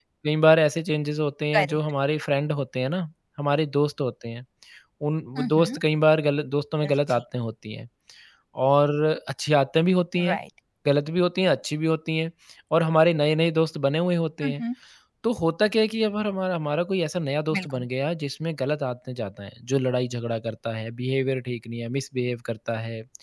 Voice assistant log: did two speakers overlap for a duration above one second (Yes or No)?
No